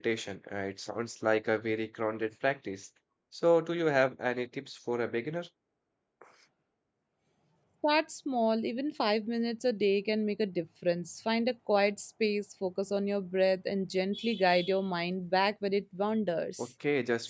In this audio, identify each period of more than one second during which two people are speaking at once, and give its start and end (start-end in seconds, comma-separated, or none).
none